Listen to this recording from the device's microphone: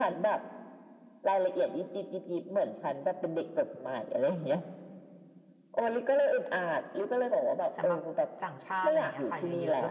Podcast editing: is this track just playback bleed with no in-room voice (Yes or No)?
No